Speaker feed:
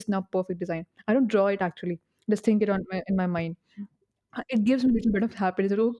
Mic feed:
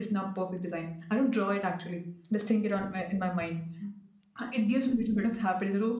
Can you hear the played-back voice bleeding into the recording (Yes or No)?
Yes